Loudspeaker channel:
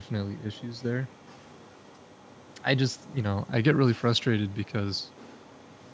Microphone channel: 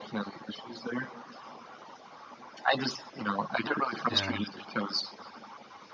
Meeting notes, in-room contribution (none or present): present